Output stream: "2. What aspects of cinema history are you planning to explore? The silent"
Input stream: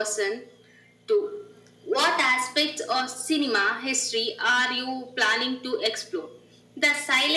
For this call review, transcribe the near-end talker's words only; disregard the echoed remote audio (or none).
none